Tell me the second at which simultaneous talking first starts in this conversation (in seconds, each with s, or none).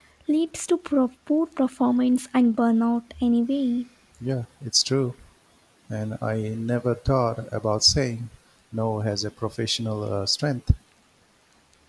none